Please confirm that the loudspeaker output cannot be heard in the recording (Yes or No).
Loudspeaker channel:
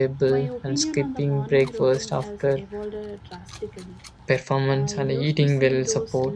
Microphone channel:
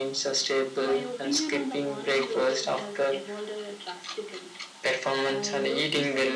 No